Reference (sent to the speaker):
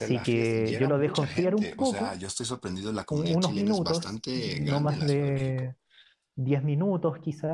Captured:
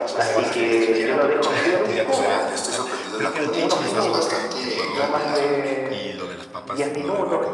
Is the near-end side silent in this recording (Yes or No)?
No